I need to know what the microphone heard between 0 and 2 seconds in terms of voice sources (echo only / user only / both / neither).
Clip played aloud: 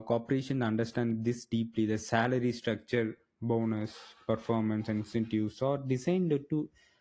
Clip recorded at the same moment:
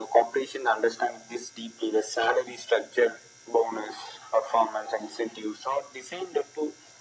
echo only